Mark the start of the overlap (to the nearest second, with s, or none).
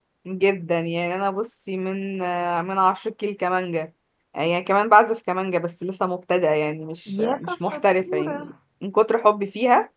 7 s